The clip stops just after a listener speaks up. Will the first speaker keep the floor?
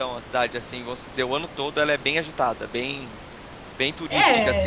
No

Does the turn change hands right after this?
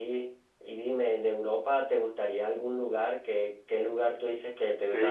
Yes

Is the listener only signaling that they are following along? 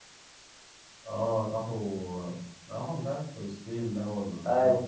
No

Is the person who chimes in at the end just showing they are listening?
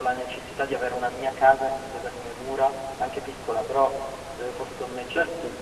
No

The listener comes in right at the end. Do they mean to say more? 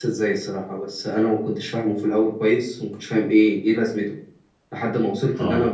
No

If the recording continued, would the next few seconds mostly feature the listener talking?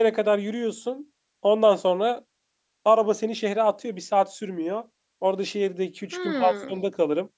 No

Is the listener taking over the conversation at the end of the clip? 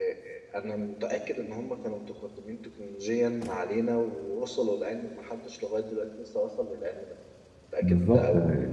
Yes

